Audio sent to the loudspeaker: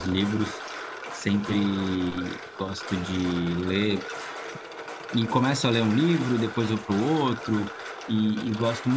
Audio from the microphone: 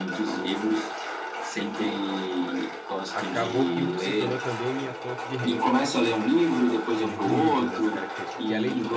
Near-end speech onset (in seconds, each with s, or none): 3.1 s